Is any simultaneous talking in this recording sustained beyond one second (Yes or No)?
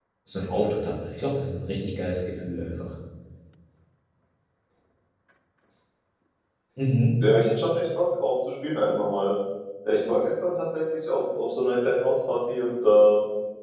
No